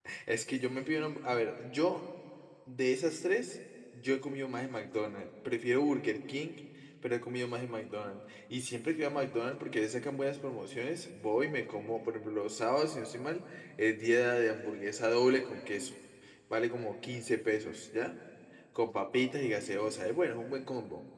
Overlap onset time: none

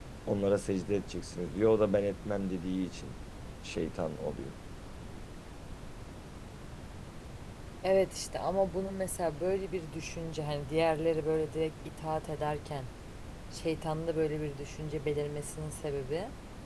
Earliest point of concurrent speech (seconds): none

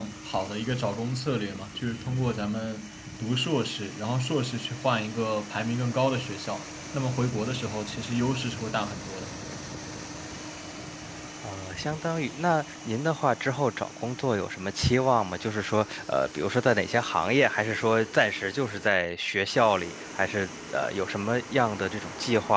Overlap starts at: none

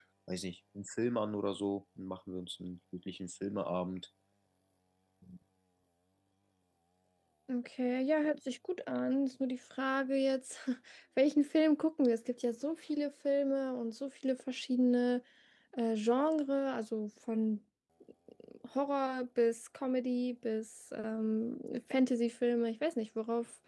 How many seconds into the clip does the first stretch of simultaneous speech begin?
none

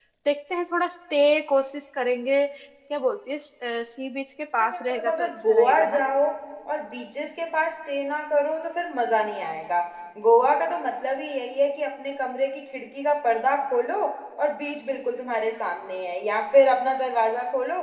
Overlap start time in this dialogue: 4.6 s

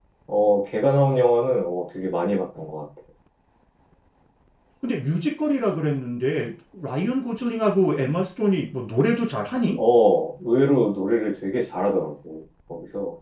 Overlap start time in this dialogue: none

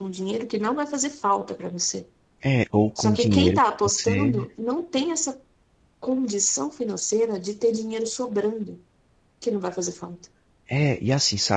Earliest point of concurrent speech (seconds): 3.0 s

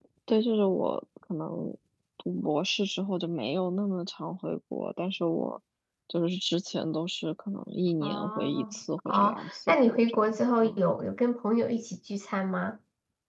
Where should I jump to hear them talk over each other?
8.0 s

